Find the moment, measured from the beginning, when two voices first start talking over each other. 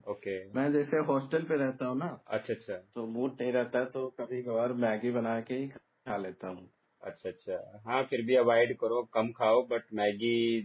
none

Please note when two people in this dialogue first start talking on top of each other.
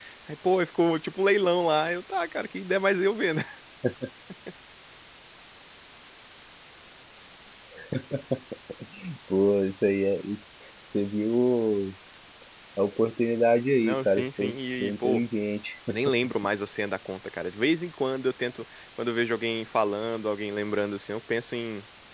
13.8 s

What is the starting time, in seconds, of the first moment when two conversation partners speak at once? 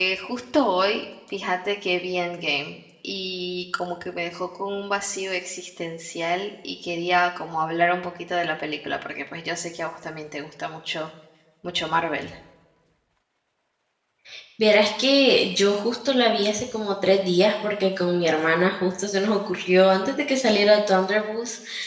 none

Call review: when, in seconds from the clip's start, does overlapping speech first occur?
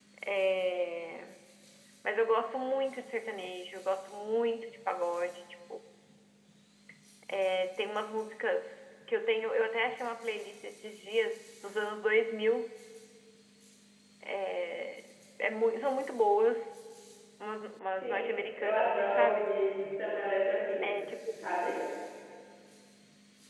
18.0 s

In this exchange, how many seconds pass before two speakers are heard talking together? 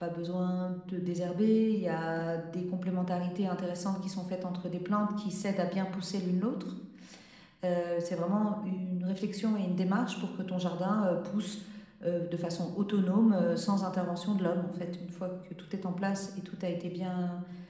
none

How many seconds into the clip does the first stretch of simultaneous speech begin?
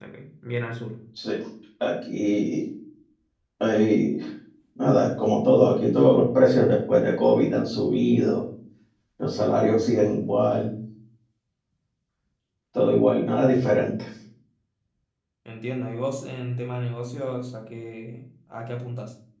none

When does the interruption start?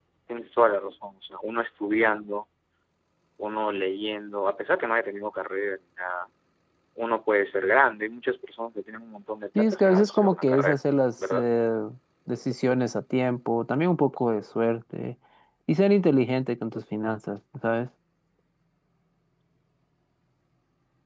9.6 s

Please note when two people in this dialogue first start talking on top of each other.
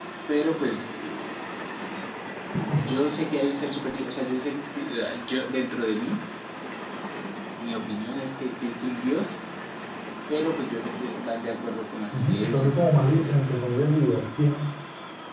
12.1 s

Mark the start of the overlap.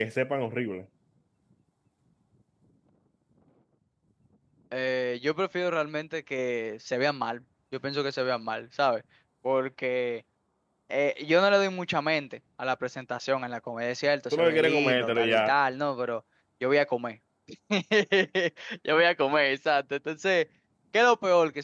14.3 s

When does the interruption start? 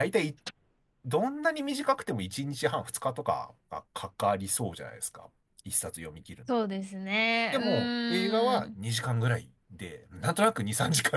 7.5 s

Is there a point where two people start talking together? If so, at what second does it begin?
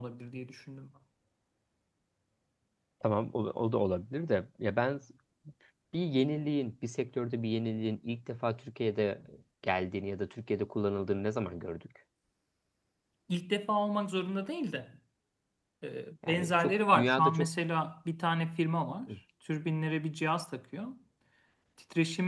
16.3 s

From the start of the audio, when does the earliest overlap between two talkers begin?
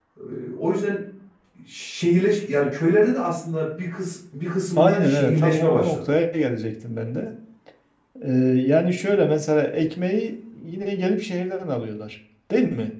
4.8 s

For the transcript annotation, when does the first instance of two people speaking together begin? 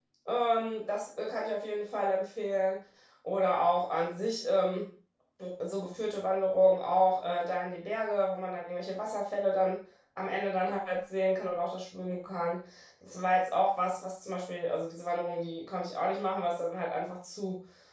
none

